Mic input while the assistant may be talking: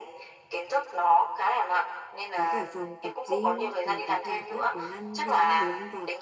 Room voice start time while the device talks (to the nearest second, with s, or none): 2 s